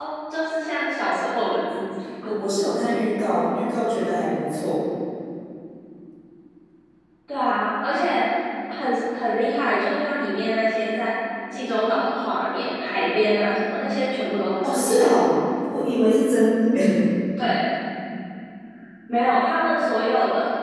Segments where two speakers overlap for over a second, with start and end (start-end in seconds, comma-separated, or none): none